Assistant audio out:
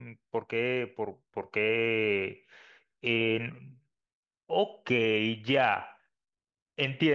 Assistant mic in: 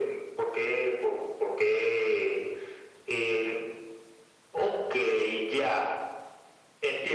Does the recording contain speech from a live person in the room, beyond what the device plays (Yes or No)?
No